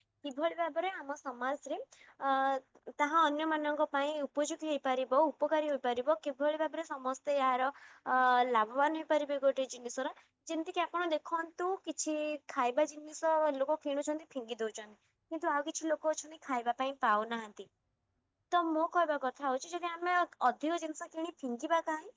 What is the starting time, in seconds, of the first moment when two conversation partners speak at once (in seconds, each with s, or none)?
none